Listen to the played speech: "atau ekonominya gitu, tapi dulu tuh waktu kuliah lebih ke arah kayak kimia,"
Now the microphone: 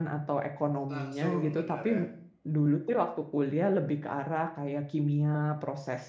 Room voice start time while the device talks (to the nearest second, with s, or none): 1 s